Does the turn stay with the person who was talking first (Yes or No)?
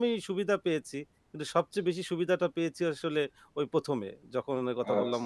No